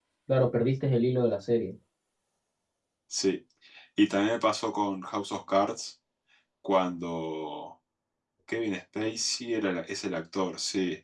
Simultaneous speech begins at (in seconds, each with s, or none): none